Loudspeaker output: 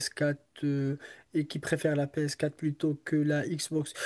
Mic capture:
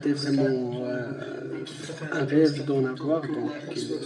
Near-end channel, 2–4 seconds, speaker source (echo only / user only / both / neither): both